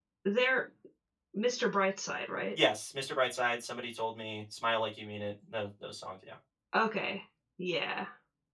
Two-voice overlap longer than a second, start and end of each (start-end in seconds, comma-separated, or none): none